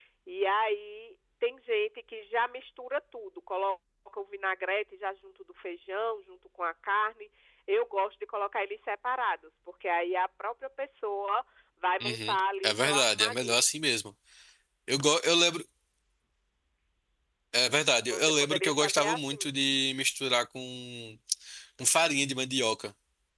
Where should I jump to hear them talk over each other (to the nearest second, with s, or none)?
12 s